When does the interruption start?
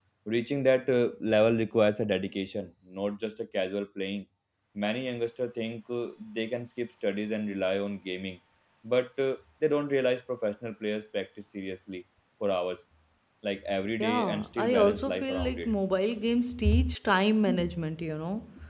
14.0 s

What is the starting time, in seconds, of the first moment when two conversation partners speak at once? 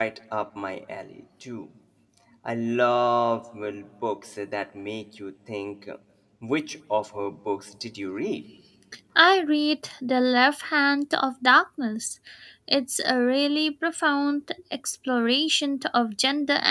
none

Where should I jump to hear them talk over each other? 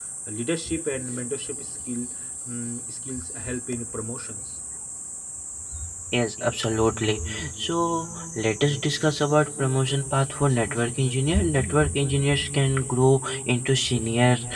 none

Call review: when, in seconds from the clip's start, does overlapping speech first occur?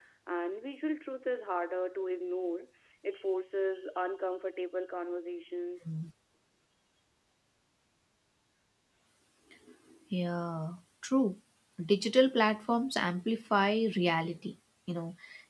none

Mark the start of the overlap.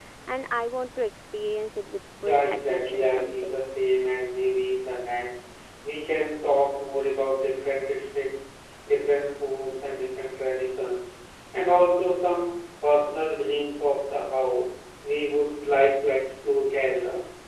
2.2 s

